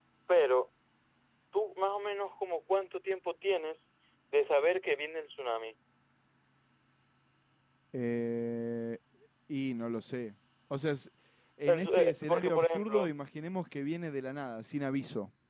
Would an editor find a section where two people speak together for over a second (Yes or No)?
Yes